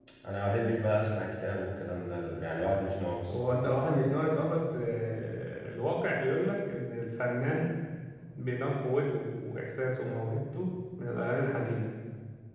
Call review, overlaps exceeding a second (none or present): none